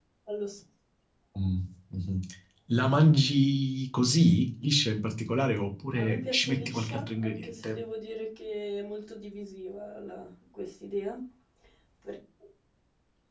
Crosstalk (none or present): present